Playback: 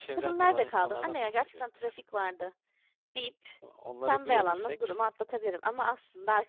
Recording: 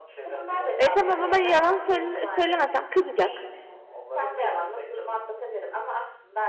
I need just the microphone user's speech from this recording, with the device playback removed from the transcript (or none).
E tamam ama yalan söyle söylemesem kızacak.